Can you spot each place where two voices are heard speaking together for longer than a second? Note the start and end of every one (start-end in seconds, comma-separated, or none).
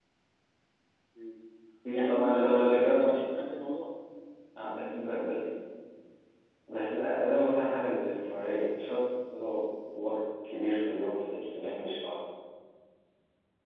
1.9-3.2